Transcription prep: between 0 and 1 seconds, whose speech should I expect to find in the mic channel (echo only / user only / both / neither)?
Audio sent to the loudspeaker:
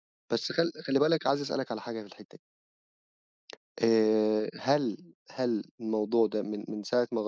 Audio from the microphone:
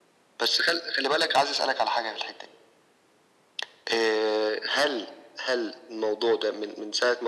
echo only